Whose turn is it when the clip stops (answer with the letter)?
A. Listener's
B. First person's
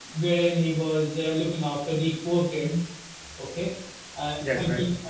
B